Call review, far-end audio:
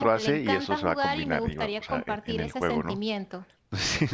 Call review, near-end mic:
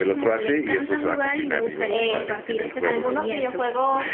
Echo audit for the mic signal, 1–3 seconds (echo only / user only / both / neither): both